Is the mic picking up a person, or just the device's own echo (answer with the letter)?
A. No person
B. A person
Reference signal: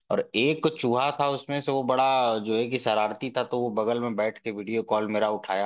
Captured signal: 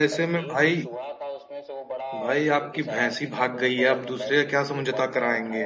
B